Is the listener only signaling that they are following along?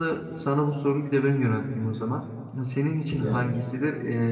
Yes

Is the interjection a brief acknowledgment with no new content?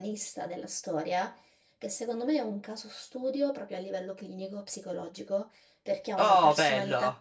Yes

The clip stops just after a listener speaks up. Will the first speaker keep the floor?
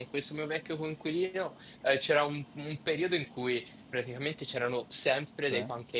Yes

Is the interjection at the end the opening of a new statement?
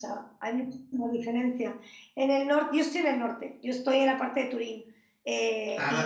No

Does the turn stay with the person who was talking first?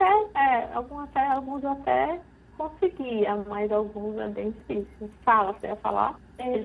No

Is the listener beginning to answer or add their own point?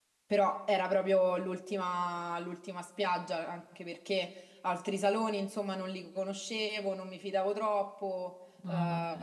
No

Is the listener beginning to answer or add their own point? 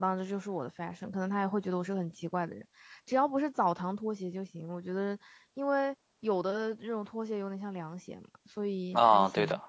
Yes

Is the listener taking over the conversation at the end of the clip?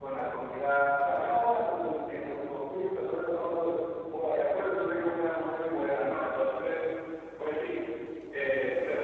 No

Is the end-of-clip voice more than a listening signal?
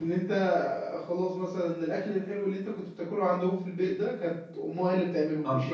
No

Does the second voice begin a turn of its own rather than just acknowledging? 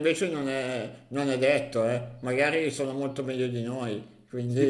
Yes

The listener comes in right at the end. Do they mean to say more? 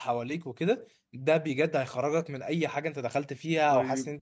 Yes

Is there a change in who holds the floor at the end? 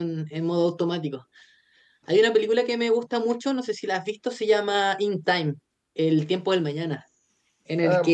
No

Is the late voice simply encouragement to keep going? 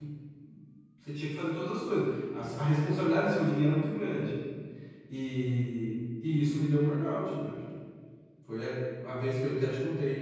Yes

